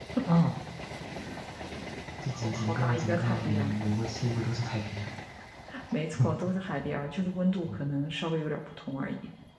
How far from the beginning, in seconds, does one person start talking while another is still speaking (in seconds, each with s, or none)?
2.3 s